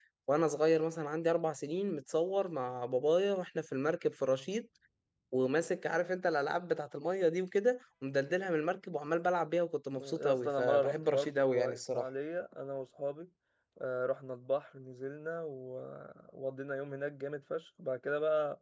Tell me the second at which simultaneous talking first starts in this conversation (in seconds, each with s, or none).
10.0 s